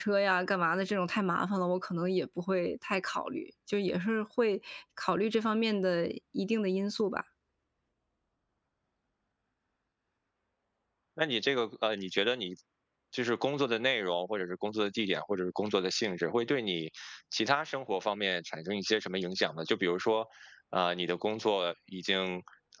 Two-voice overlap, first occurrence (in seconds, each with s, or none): none